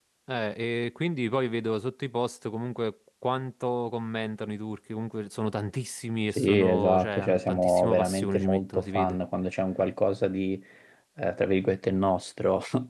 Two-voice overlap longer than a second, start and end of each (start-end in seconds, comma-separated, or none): 6.3-9.2